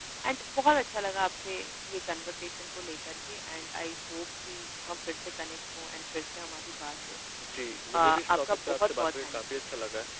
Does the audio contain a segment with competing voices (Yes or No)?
Yes